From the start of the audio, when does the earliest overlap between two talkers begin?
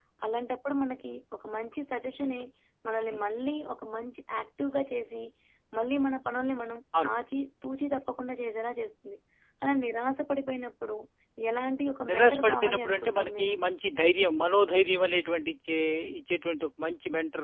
12 s

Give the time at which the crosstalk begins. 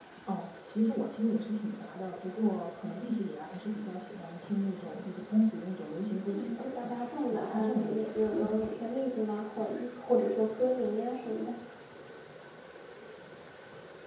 6 s

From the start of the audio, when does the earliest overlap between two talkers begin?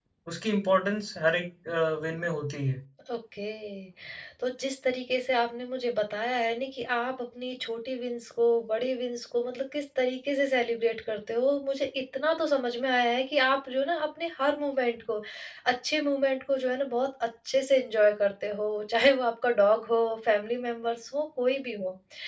none

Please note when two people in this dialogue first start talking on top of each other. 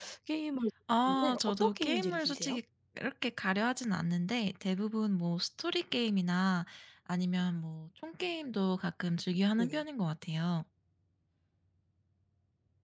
1 s

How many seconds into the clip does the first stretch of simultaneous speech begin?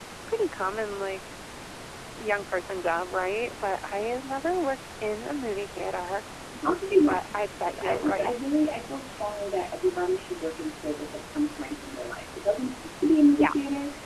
7 s

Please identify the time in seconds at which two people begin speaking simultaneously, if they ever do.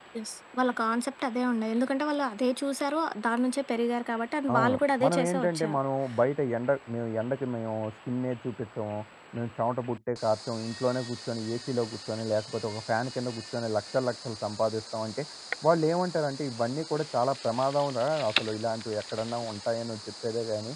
4 s

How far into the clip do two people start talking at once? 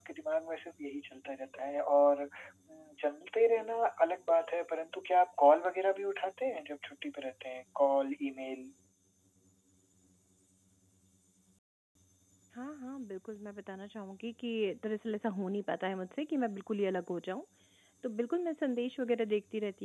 none

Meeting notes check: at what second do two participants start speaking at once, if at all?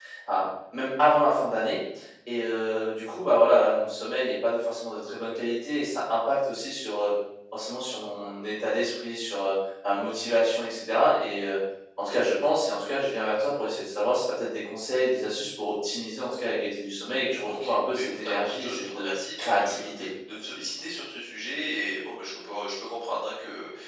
17 s

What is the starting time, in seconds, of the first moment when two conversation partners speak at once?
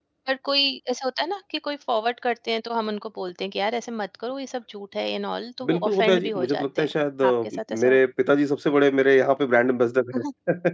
6 s

